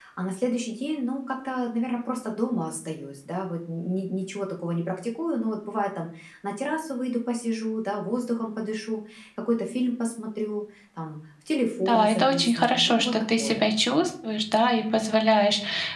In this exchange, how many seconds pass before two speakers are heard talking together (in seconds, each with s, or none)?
11.8 s